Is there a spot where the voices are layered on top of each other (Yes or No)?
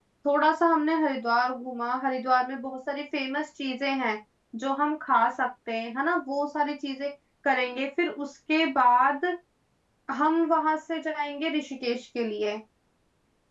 No